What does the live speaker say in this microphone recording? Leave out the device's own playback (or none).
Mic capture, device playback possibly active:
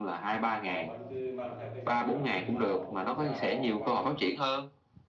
Họ vẫn cứ mang theo cái dòng đặc trưng của họ, của quốc gia họ qua.